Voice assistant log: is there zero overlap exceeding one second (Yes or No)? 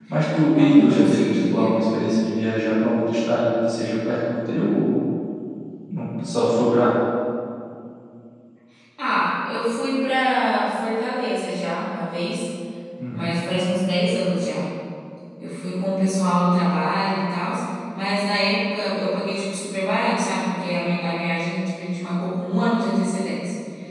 No